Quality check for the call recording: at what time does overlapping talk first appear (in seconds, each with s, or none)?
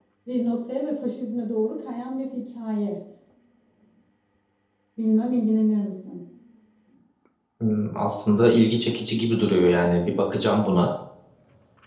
none